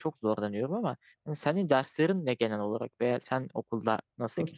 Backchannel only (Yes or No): No